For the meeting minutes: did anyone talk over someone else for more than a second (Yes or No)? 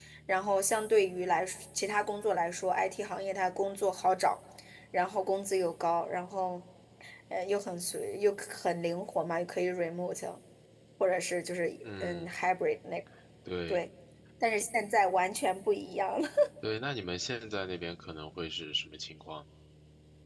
No